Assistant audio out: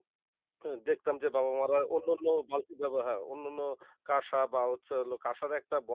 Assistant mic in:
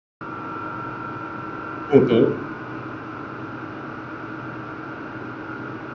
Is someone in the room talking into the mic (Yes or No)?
Yes